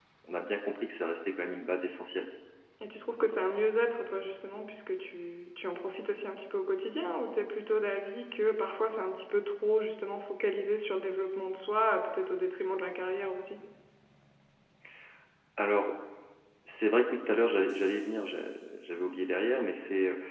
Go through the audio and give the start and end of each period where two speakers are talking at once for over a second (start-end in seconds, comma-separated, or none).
none